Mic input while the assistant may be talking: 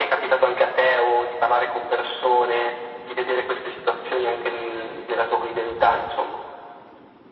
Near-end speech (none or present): none